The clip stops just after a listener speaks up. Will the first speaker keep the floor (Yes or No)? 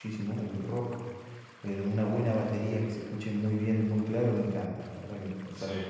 No